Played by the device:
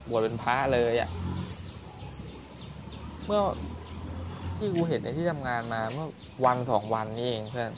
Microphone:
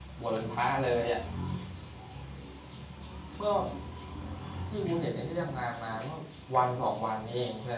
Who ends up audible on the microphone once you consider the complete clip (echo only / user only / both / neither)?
echo only